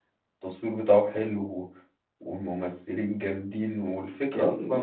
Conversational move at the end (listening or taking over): listening